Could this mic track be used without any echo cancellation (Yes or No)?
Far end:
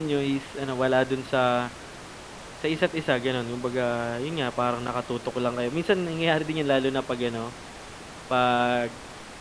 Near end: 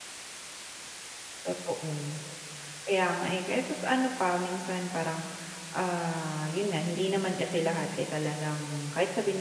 Yes